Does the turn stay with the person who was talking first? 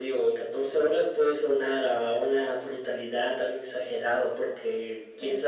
Yes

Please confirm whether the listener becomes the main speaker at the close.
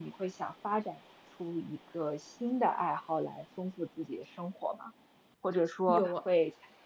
No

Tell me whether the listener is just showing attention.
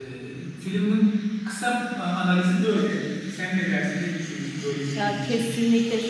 No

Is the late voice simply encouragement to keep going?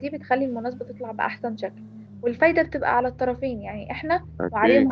Yes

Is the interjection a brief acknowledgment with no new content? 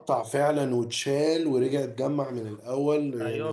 No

